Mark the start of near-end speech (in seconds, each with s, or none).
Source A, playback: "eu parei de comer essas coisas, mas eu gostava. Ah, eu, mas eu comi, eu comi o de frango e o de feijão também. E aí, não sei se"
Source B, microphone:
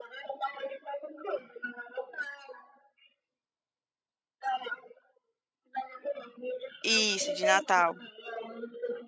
6.8 s